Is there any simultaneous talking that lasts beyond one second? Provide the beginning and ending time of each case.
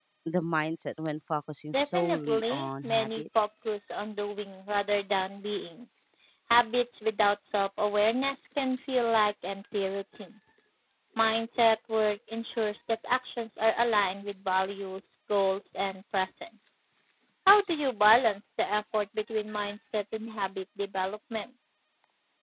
1.7-3.7

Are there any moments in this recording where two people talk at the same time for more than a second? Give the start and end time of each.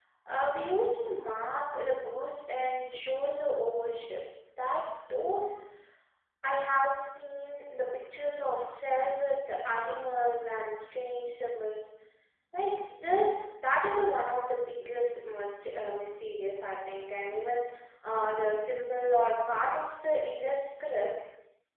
none

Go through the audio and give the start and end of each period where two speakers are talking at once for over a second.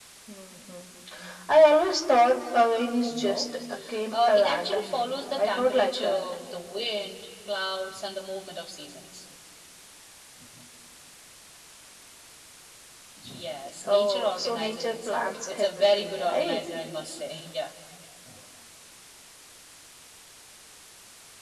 4.1-6.2, 13.8-16.6

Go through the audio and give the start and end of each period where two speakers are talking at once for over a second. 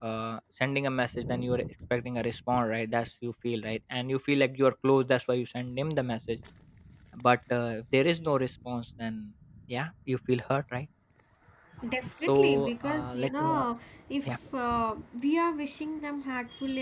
12.3-13.7

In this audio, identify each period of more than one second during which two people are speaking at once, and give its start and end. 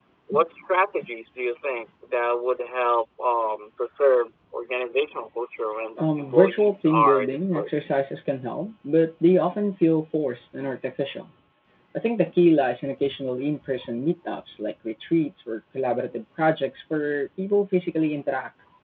6.2-7.8

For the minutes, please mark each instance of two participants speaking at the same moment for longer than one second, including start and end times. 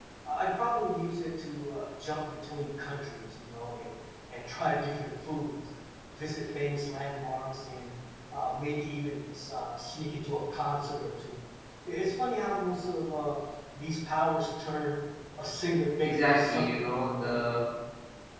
16.0-17.6

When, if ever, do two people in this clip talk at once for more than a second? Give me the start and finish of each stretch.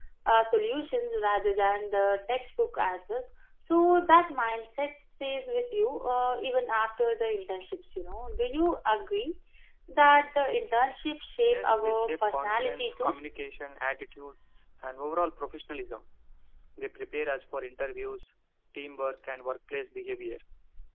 11.5-13.1

